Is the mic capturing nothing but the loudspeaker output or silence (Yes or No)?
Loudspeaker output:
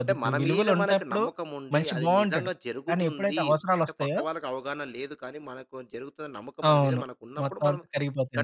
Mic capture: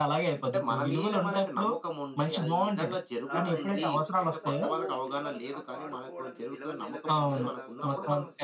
No